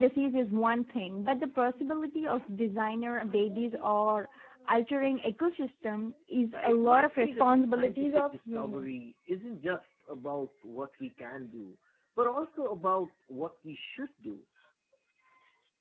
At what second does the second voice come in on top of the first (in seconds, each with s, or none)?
6.5 s